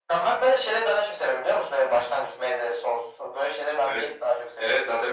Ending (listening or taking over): taking over